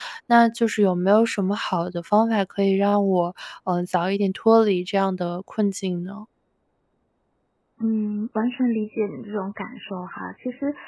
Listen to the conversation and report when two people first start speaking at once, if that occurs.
none

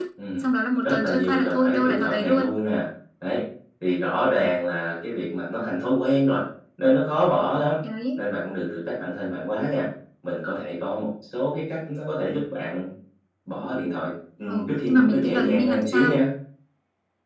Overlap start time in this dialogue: 0.8 s

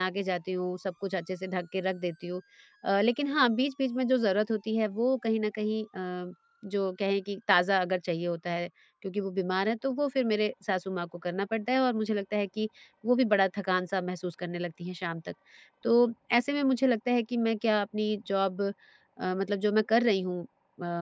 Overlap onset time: none

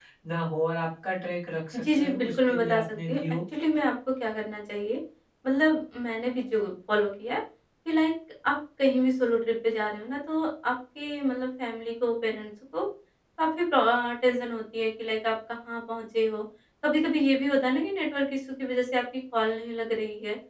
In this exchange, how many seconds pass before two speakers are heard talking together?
1.7 s

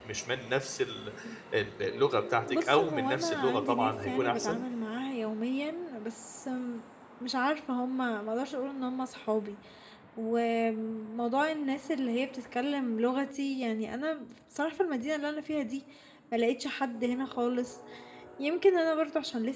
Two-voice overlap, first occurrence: 2.5 s

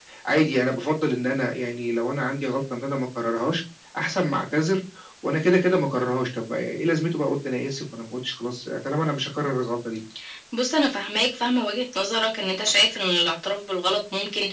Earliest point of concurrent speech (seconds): none

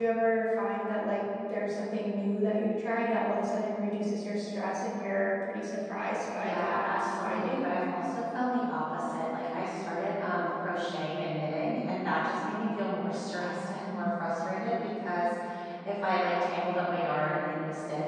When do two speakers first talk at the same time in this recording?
6.3 s

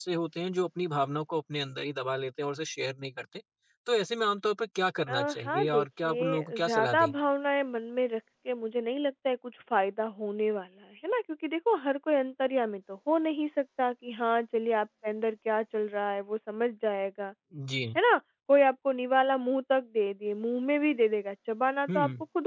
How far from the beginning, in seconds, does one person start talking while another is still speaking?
5.1 s

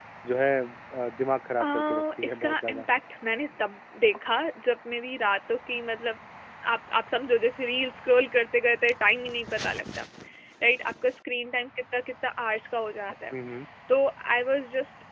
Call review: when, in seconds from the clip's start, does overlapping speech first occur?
1.6 s

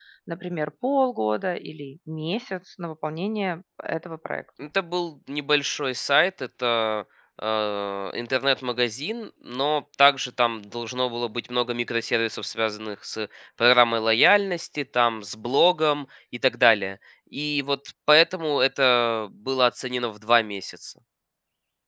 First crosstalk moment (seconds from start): none

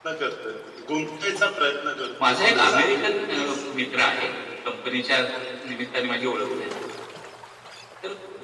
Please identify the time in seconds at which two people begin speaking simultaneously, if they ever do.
2.2 s

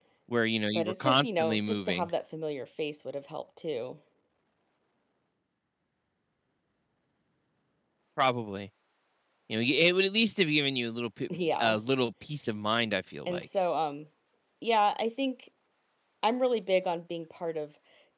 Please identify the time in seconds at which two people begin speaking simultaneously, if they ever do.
0.7 s

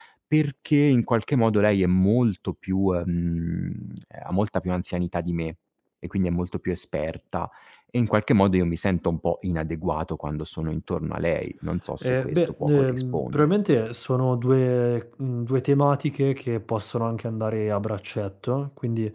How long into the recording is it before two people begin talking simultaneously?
12.0 s

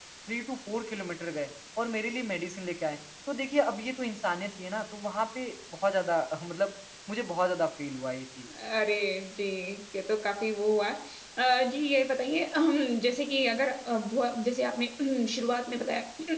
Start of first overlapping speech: none

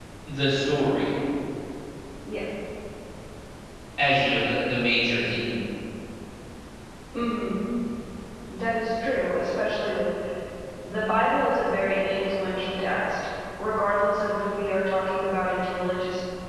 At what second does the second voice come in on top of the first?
none

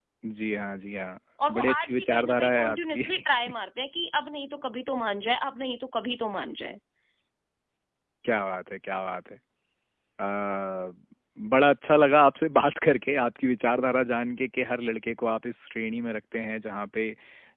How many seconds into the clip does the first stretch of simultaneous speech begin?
1.4 s

